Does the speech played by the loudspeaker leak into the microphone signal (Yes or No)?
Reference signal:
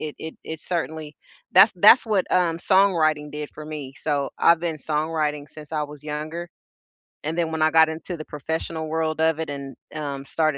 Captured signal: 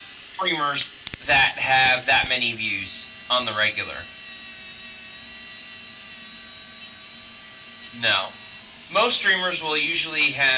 No